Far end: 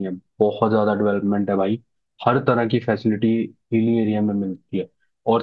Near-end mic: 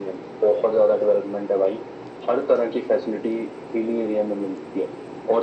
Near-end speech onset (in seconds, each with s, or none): none